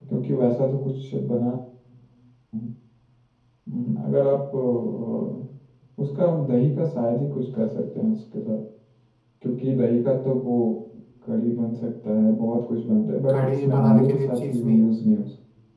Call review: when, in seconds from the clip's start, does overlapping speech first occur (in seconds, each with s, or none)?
13.3 s